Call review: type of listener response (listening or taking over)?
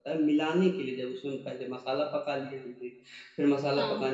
listening